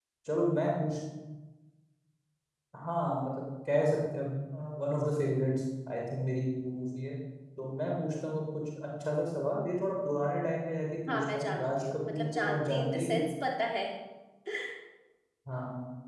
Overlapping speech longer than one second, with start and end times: 11.1-13.2

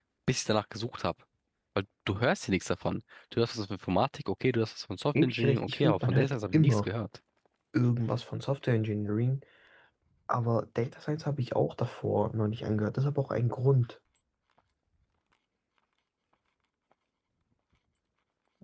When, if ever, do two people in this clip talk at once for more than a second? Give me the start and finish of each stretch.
5.2-6.9

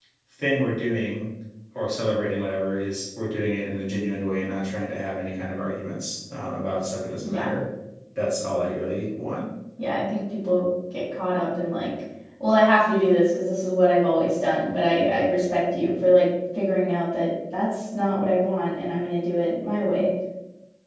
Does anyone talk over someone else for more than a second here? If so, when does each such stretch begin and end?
none

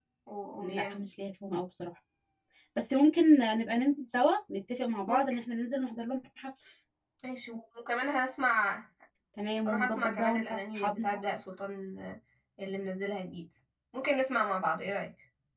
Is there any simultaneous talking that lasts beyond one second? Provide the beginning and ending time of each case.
9.7-11.2

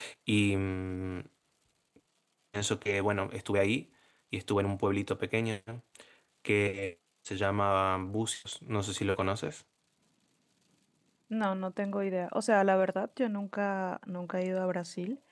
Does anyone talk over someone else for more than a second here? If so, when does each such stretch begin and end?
none

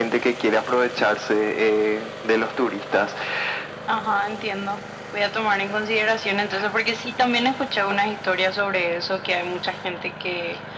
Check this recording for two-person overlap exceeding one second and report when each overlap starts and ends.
none

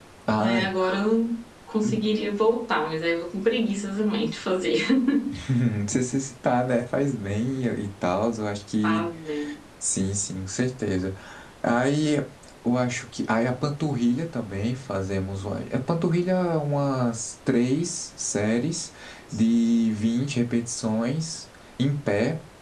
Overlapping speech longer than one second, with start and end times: none

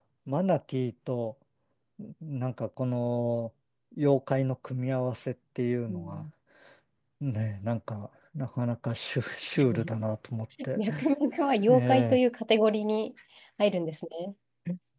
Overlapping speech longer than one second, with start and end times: none

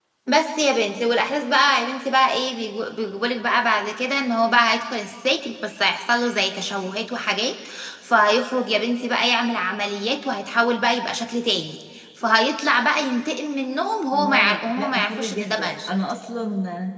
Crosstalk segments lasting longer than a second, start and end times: 14.1-15.7

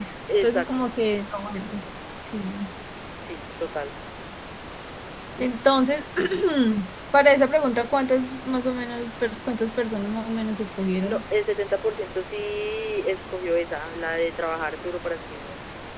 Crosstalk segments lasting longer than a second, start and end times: none

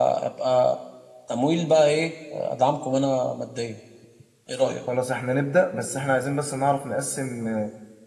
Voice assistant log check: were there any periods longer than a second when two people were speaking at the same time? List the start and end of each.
none

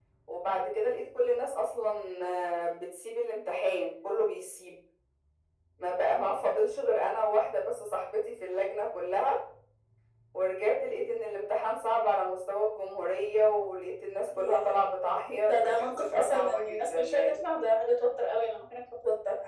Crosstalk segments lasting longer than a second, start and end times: 15.4-17.4

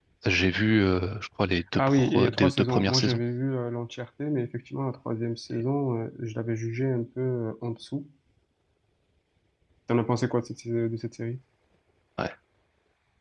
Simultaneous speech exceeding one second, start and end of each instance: 1.8-3.2

